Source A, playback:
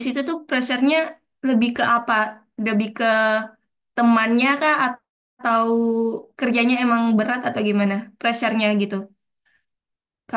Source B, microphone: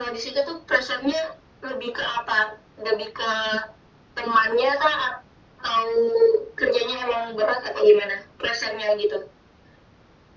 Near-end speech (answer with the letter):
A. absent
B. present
A